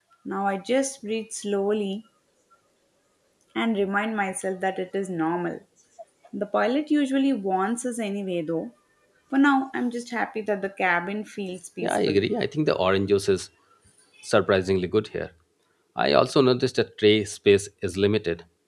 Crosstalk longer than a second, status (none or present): none